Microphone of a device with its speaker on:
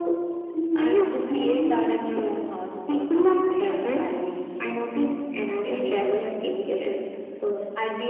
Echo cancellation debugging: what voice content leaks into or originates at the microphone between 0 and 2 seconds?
echo only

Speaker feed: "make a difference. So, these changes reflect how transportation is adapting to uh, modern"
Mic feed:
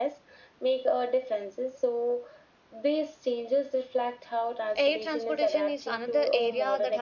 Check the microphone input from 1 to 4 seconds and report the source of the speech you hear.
echo only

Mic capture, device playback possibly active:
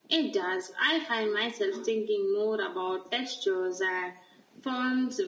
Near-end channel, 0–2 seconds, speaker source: echo only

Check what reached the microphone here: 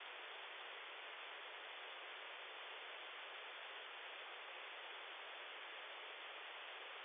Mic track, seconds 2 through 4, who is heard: neither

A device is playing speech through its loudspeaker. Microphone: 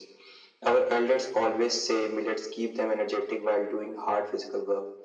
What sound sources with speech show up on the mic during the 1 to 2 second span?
echo only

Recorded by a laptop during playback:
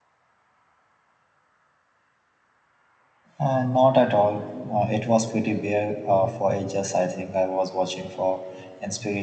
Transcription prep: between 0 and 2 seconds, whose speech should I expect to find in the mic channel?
neither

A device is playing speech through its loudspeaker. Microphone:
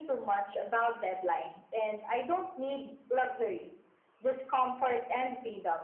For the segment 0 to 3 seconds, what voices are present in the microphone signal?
echo only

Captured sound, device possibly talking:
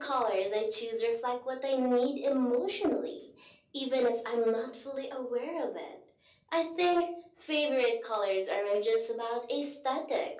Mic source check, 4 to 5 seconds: echo only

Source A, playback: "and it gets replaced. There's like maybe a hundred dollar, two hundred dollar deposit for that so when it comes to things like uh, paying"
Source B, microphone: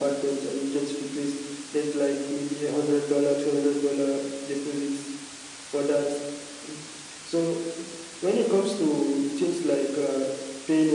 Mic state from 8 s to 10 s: echo only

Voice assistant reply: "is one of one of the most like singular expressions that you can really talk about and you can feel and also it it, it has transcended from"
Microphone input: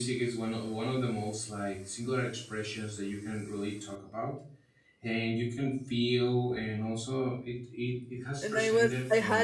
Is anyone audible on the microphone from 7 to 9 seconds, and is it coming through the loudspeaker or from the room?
both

